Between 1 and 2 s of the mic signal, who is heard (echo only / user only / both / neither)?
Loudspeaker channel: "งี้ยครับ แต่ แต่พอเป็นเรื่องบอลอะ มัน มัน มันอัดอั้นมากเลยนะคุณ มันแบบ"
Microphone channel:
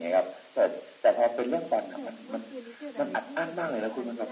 both